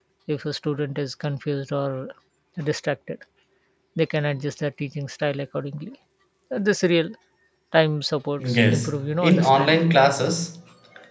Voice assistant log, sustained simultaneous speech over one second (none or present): present